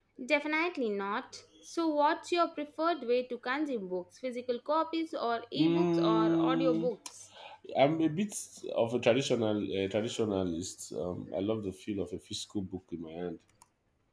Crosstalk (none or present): present